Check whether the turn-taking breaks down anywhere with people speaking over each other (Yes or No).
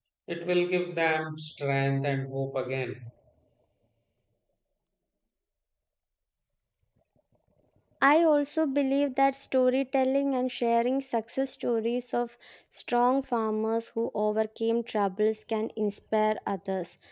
No